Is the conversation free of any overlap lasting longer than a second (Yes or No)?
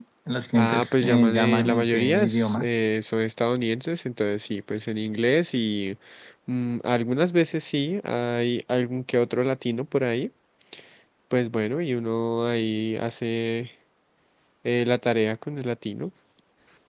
No